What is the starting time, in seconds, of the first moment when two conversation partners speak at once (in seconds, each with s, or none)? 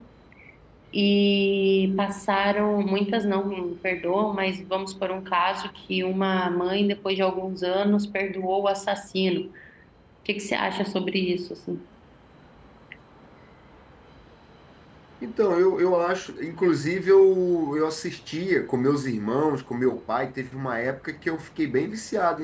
none